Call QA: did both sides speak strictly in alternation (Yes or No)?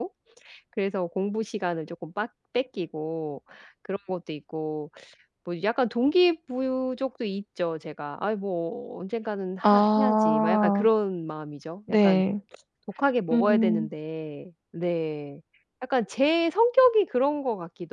No